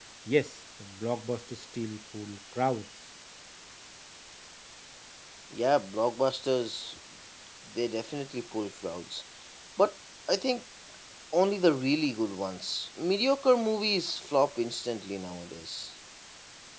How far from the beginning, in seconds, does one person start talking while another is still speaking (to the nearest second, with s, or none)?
none